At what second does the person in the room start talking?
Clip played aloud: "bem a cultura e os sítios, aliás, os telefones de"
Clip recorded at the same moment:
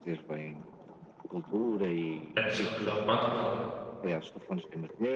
2.4 s

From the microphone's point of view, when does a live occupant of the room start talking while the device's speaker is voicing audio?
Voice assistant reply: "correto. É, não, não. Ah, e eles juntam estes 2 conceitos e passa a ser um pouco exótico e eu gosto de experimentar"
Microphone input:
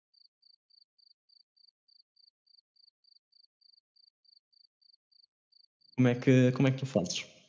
5.9 s

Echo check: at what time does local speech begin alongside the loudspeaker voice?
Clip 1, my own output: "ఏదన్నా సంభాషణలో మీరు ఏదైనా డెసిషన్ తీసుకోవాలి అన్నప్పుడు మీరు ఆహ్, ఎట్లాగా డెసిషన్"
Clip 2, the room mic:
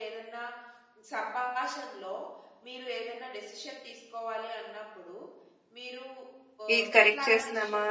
6.8 s

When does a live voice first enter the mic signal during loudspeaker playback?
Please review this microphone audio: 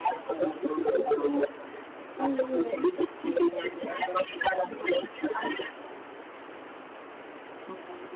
2.2 s

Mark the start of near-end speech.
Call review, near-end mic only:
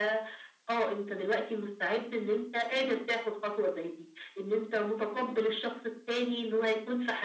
none

